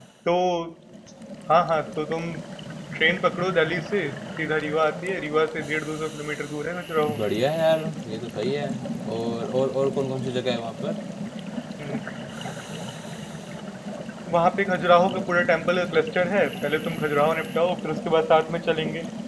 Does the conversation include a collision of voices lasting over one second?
No

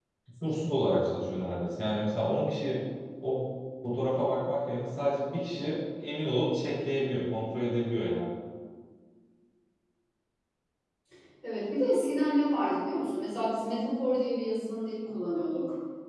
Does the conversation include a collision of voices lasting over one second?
No

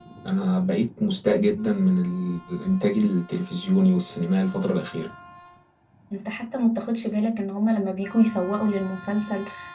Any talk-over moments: No

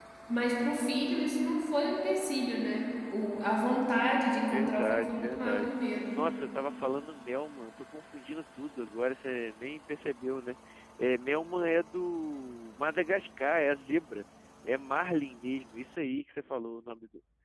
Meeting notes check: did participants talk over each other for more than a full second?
Yes, from 4.5 s

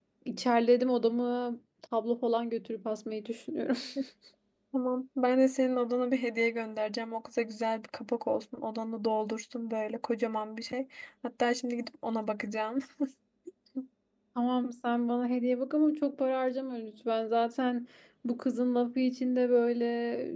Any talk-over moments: No

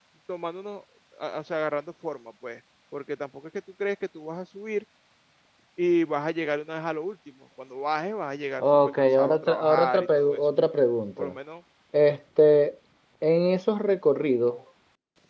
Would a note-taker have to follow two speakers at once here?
Yes, from 8.6 s

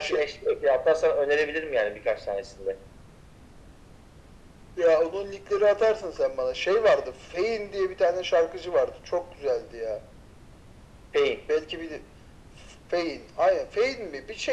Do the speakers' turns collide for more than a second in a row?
No

